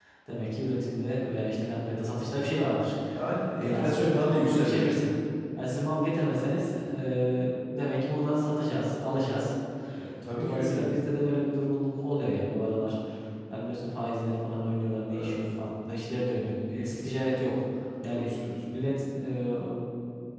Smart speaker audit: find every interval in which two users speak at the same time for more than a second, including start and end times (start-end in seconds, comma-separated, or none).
3.6-4.9